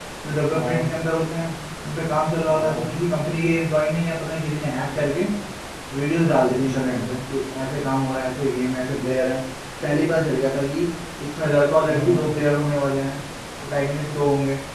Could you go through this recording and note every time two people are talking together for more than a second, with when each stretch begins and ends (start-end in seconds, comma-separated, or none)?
none